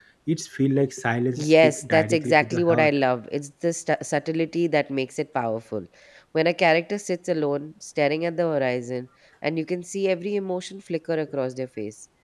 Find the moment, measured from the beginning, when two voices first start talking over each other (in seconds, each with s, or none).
1.4 s